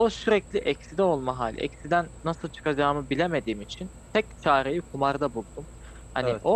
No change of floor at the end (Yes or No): Yes